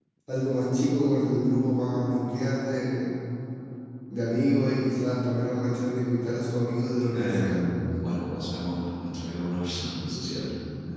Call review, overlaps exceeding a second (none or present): none